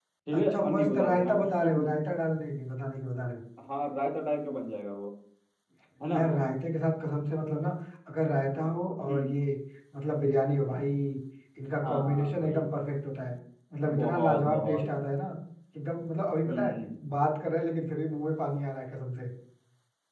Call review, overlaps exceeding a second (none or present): present